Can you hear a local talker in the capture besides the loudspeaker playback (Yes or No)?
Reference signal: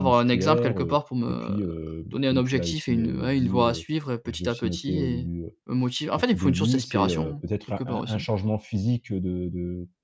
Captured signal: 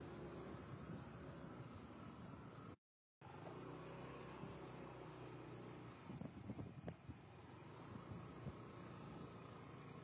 No